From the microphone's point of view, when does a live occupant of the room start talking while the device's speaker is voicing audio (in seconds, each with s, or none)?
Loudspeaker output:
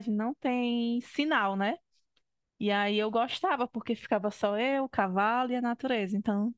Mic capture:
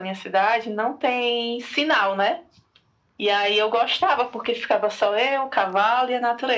none